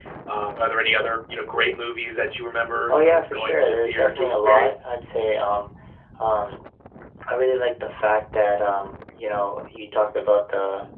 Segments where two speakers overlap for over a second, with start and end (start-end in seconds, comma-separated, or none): 2.9-4.9